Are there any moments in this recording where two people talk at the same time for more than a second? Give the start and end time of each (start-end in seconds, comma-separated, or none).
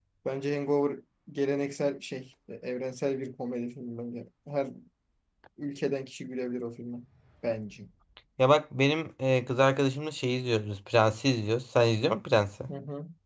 none